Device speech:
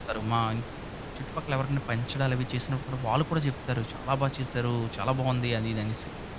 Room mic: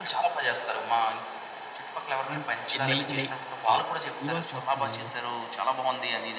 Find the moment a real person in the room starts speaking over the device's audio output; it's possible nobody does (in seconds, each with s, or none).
2.3 s